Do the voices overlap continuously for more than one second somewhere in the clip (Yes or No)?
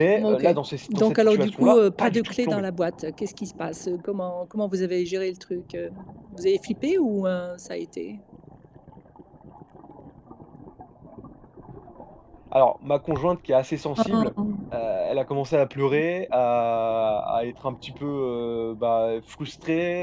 Yes